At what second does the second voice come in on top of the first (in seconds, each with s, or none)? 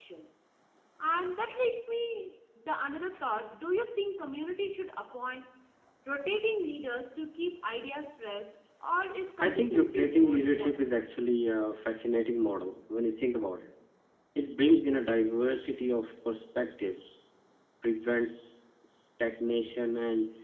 9.4 s